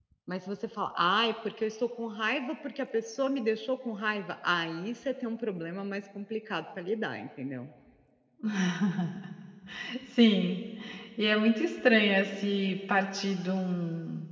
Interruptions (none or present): none